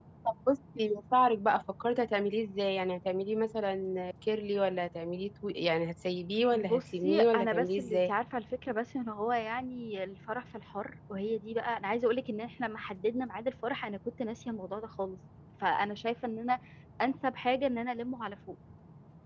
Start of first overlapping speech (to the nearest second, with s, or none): 7 s